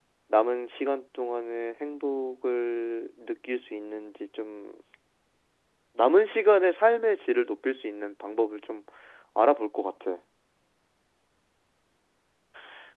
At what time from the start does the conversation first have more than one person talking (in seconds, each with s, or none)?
none